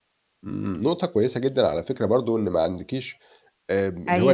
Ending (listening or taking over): listening